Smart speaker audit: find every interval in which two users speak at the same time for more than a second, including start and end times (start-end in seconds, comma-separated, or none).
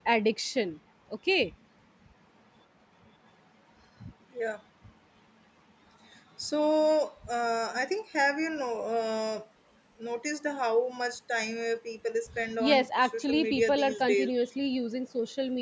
12.6-14.3